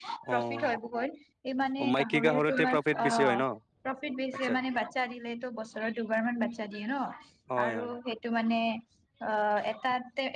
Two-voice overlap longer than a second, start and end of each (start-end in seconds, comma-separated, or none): 1.8-3.4